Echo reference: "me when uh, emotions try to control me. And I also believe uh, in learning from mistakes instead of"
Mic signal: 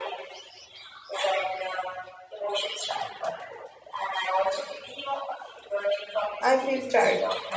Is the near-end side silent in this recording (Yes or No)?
No